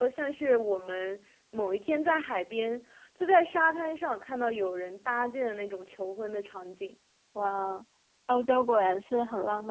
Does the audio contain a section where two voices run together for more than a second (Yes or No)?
No